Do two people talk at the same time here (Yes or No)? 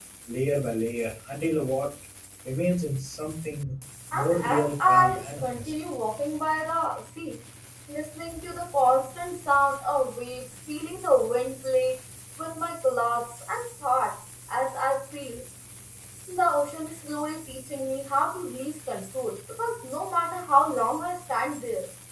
Yes